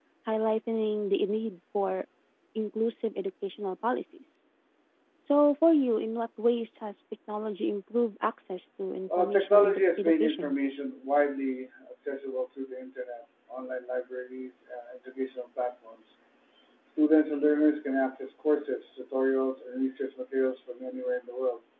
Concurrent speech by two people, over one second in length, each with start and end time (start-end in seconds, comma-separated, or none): 9.2-10.6